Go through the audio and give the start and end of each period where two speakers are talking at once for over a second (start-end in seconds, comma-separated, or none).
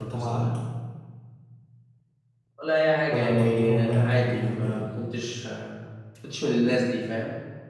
3.1-4.9